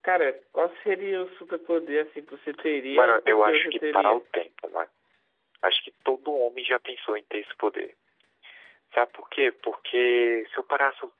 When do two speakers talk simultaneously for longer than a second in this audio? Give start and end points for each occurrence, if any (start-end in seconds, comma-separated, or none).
2.9-4.2